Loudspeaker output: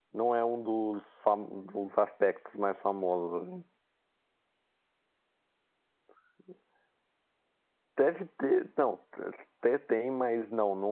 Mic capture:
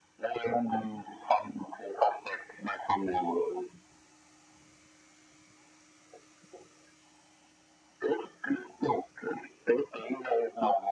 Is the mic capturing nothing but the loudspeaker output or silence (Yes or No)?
Yes